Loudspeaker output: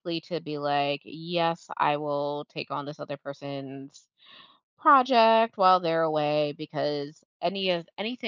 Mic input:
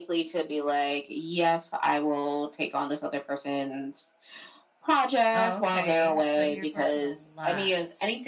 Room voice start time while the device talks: 5 s

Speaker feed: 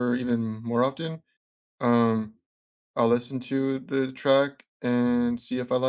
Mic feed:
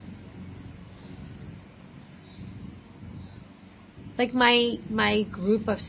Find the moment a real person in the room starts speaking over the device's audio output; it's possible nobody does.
4 s

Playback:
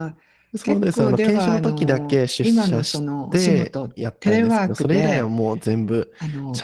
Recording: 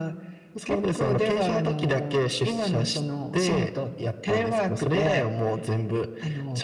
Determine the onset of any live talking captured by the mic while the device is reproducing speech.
none

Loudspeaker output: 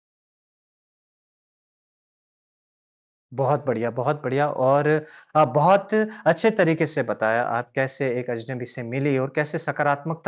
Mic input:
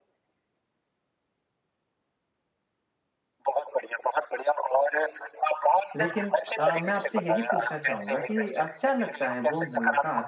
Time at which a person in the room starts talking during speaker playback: 6 s

